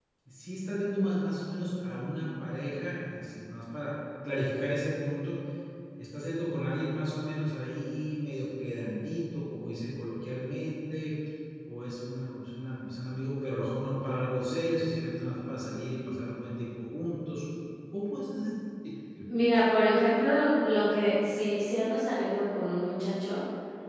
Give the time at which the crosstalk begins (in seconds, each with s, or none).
none